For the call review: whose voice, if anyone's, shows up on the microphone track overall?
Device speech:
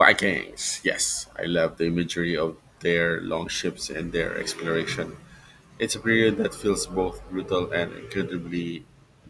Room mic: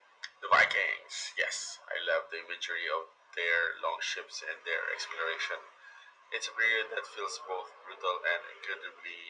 echo only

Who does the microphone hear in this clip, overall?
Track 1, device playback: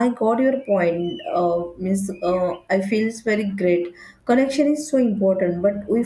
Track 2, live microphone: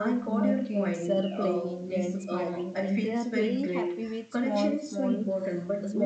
both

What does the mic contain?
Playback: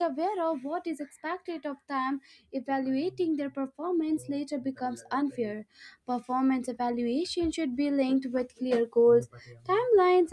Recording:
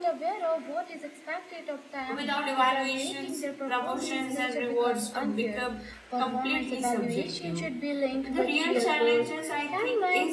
both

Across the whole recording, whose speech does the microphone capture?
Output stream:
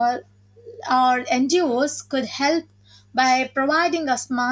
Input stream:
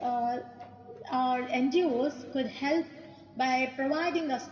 echo only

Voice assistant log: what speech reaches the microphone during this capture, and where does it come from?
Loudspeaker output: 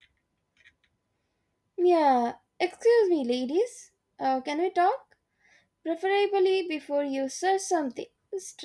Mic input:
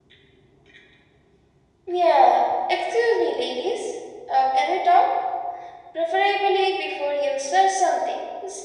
echo only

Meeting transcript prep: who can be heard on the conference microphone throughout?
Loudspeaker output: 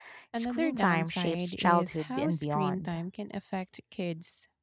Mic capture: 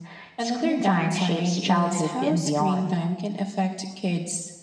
echo only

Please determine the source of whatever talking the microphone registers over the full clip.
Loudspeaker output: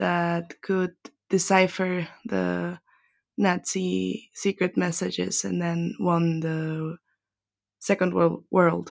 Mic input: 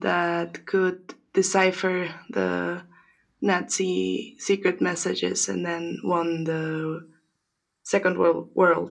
echo only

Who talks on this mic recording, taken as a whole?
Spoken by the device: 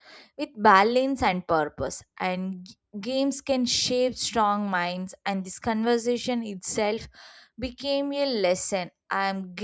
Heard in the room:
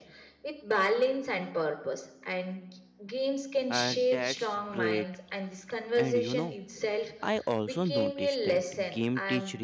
both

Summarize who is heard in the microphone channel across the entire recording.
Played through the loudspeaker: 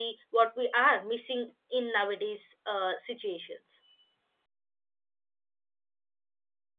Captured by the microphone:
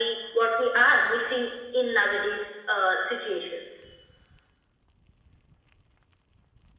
echo only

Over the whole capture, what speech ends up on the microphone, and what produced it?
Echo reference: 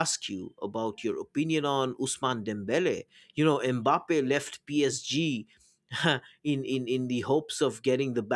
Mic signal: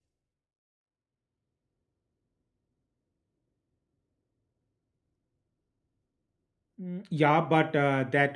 user only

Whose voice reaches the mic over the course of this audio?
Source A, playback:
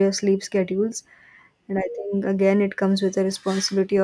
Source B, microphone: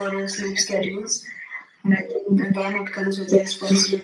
echo only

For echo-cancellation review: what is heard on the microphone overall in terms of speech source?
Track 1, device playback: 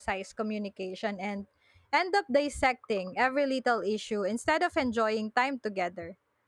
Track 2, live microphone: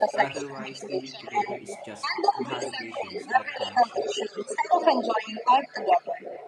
both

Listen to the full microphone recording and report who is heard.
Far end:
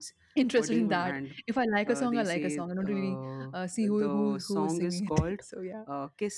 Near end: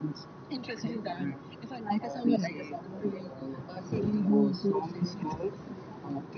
echo only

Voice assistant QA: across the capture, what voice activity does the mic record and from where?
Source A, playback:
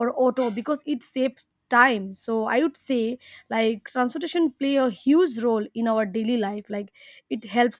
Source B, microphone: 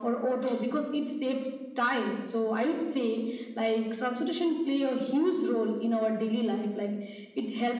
echo only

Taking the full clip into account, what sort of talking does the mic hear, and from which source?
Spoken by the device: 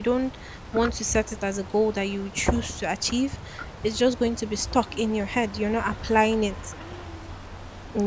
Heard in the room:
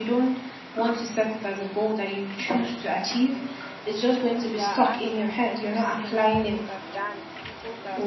both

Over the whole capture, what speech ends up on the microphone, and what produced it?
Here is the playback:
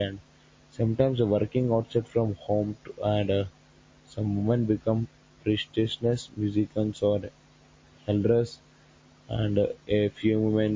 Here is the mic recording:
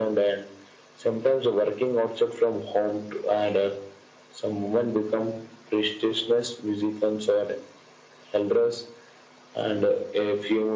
echo only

